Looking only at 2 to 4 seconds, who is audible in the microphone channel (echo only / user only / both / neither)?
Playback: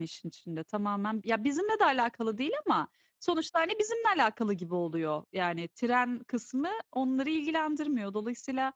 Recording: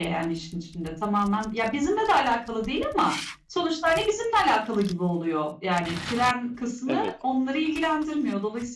echo only